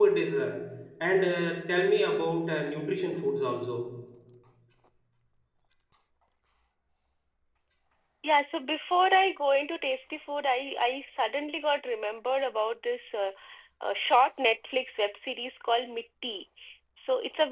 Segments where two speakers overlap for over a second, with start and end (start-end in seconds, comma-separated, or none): none